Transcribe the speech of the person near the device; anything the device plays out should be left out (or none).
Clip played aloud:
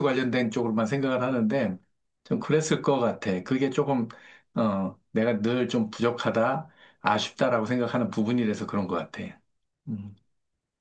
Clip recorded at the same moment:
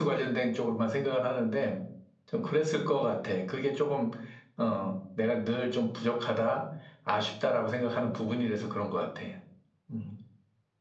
none